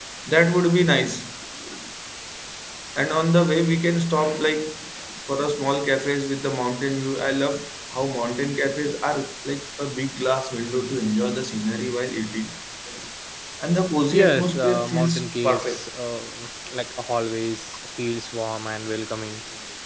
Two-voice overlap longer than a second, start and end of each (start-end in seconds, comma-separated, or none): 14.1-15.8